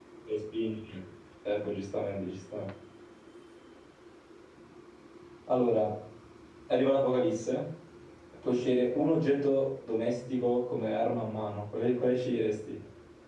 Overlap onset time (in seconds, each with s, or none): none